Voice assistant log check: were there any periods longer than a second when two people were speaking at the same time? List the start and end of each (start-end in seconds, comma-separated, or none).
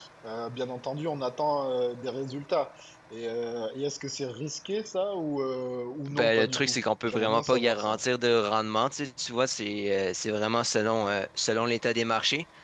6.1-8.0